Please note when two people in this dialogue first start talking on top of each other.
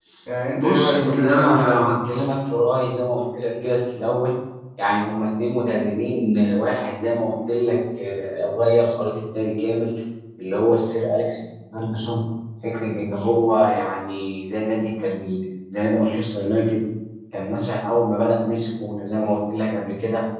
0.5 s

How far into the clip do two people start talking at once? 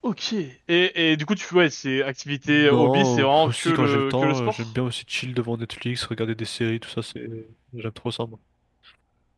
2.4 s

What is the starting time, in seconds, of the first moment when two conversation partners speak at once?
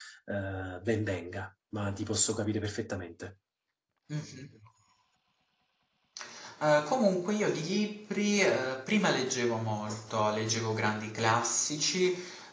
none

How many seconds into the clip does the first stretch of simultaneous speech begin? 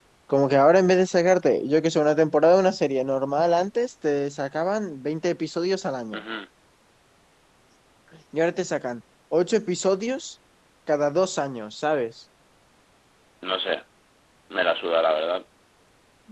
none

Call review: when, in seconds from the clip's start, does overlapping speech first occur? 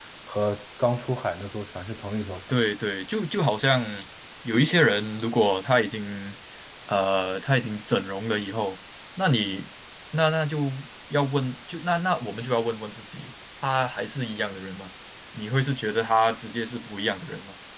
none

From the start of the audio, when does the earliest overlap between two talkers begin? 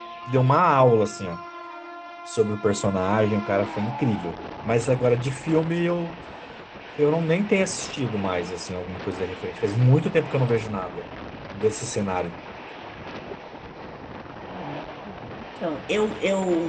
none

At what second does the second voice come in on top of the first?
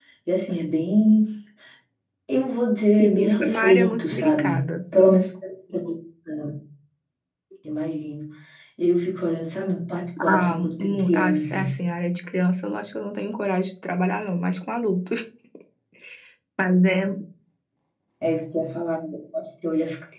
3.0 s

